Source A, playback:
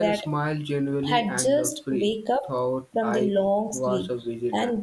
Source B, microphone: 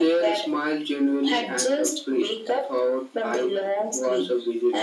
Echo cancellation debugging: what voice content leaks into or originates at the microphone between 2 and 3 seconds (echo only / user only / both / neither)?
echo only